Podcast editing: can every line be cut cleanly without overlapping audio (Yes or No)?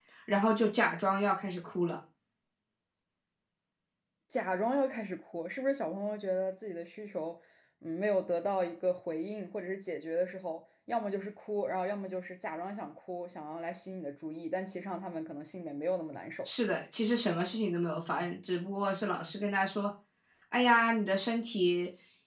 Yes